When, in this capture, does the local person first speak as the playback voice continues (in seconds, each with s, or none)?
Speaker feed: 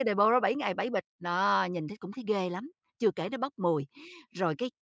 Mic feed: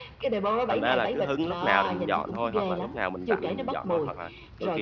0.7 s